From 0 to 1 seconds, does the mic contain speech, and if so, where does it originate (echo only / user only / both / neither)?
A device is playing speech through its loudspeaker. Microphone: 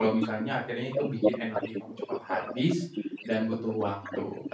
both